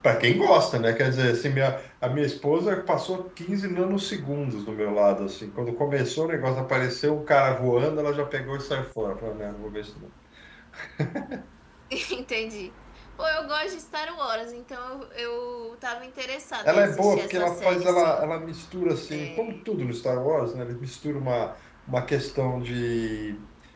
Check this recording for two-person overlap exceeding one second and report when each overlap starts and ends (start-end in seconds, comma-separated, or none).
16.6-18.2